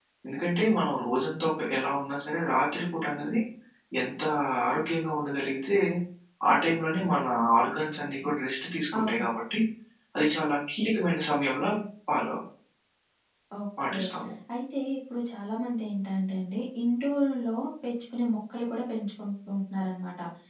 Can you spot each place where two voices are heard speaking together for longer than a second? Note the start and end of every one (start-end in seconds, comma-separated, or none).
none